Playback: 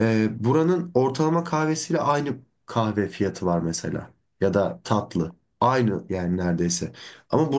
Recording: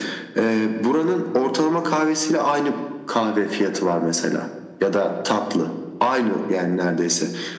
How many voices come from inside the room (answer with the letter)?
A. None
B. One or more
A